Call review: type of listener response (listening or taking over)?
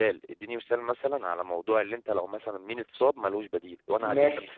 taking over